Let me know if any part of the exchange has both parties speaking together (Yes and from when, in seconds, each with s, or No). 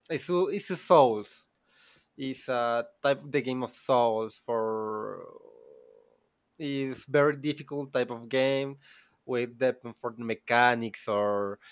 No